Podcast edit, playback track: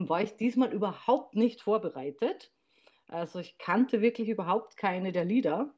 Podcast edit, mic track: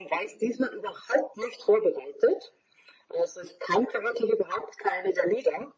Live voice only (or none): none